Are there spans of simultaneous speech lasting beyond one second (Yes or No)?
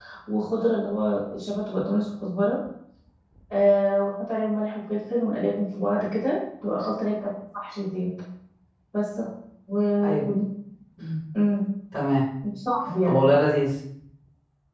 No